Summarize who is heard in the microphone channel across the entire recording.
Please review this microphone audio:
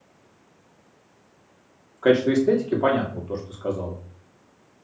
user only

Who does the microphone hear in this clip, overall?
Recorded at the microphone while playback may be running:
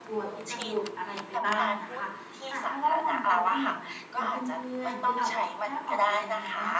both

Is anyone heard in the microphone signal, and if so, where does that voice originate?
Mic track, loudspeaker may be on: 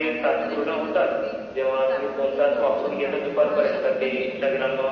both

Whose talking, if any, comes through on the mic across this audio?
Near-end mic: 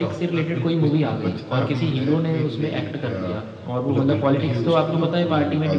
echo only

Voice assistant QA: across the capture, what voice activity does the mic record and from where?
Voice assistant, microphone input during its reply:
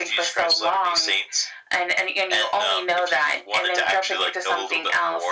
echo only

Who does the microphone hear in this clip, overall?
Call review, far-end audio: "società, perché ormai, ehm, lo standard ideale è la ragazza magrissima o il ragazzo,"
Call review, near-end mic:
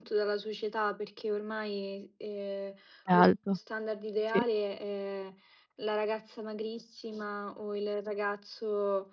both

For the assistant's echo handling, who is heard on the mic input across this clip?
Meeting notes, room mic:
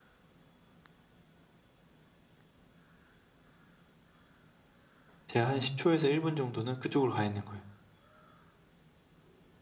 user only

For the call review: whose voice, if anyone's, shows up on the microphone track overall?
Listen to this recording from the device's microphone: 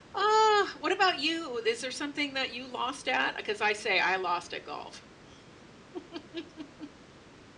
user only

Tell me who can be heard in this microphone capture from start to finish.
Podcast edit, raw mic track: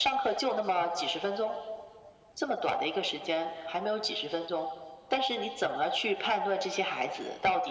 echo only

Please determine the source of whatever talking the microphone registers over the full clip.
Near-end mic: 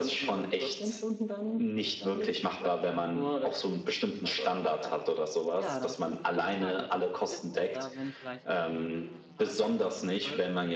both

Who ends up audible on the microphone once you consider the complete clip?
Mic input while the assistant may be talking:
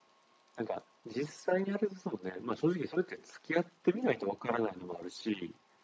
echo only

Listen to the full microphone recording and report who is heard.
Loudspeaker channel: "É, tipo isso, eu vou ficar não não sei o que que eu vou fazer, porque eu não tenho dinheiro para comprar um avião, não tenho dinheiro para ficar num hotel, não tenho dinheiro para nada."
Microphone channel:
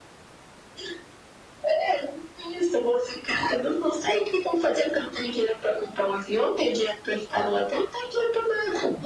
echo only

